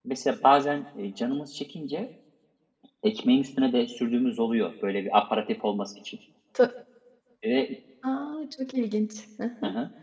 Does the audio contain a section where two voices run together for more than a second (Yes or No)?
No